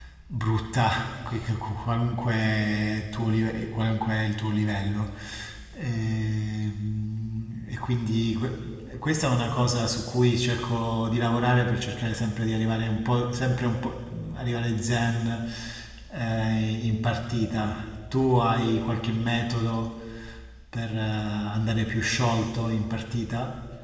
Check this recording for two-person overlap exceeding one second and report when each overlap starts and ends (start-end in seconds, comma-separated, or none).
none